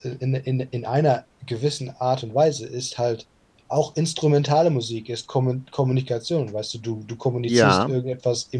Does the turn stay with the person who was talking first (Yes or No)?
Yes